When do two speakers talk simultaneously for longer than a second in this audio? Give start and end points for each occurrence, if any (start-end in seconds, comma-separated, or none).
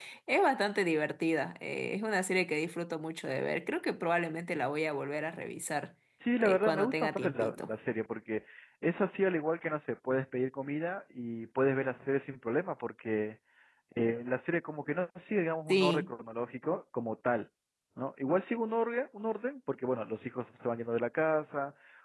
6.4-7.7